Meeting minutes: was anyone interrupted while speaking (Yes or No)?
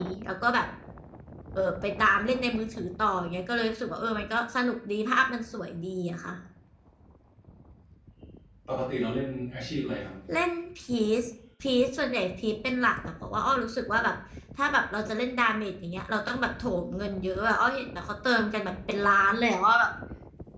No